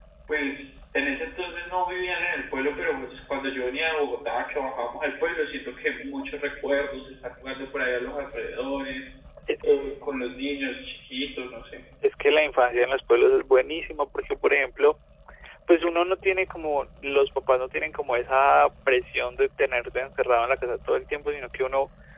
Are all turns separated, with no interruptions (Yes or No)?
Yes